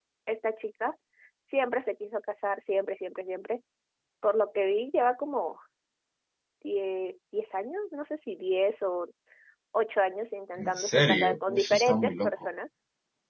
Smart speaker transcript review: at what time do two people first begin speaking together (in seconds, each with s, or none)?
10.6 s